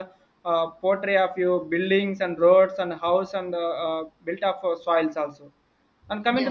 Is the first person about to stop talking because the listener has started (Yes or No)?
No